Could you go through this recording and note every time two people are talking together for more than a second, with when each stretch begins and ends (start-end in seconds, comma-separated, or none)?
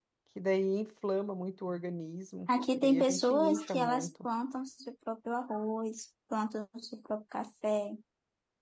2.8-4.3